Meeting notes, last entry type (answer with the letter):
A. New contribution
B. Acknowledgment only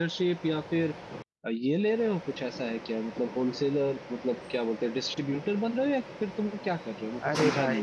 A